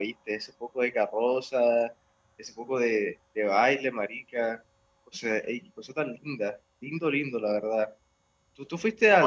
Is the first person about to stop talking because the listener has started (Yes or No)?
No